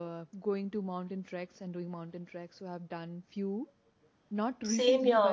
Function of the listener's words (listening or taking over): listening